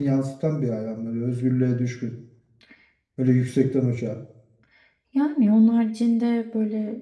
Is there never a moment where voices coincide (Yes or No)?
Yes